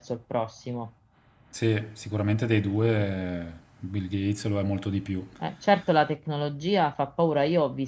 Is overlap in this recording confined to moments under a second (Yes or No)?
Yes